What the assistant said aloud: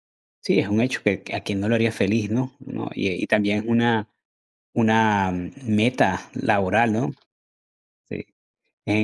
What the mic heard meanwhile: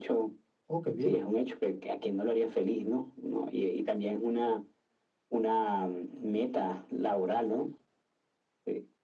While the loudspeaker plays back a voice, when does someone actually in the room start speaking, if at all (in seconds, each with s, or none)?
0.7 s